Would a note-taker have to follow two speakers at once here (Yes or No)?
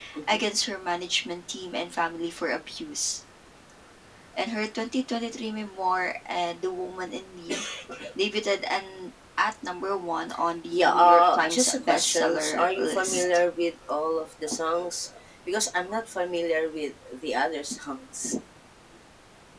Yes